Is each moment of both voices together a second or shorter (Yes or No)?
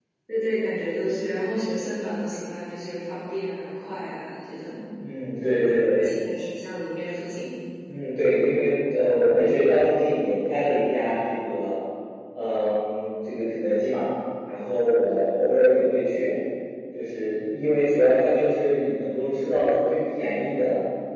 Yes